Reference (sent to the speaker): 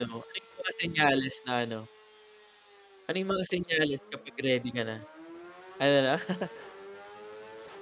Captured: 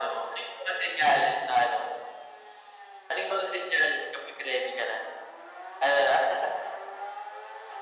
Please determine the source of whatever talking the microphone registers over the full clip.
echo only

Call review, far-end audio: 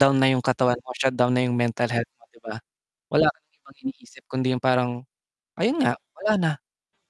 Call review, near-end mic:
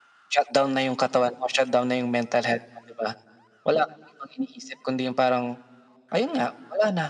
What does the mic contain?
echo only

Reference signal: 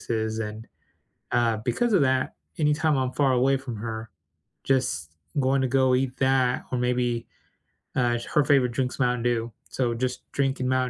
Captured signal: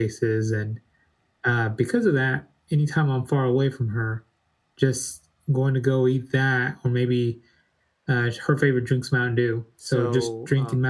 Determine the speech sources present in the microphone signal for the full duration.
both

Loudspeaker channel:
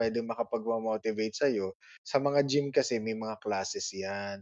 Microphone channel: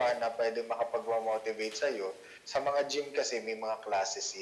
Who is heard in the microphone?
echo only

